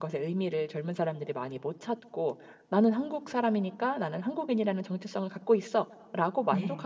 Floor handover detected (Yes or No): No